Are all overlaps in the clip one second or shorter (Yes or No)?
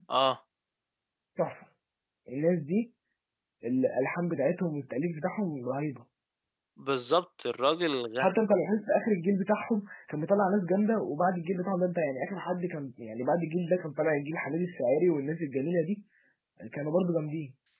Yes